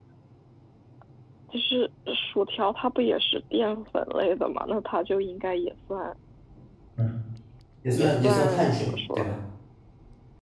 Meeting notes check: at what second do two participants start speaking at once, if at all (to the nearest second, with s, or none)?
8 s